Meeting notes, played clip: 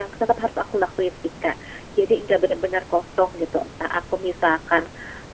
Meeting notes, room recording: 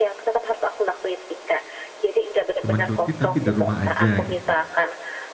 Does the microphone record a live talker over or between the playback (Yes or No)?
Yes